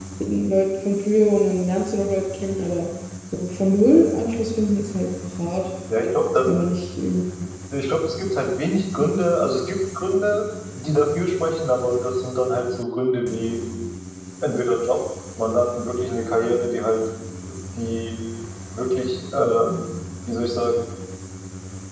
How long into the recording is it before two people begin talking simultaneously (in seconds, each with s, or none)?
none